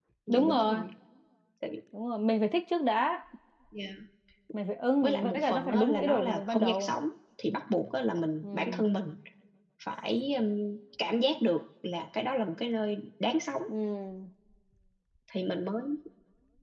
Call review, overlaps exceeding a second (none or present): present